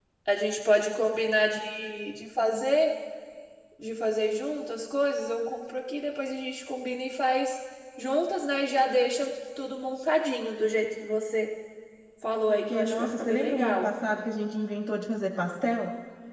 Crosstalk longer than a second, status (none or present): present